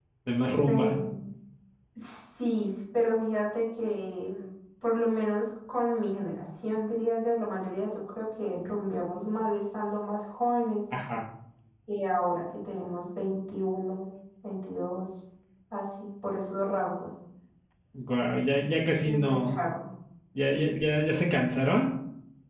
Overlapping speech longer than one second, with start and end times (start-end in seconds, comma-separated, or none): none